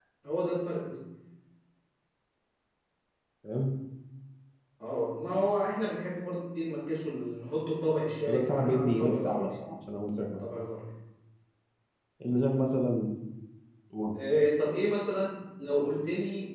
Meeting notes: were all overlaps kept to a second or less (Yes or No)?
No